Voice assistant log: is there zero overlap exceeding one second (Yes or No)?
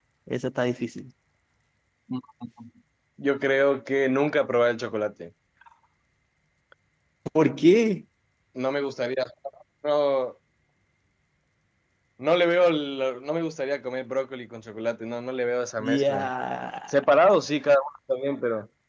Yes